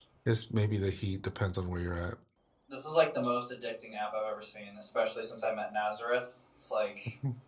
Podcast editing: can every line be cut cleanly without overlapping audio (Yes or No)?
Yes